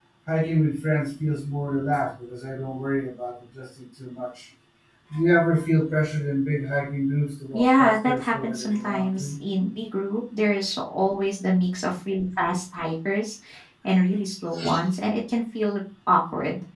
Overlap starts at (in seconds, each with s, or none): 7.5 s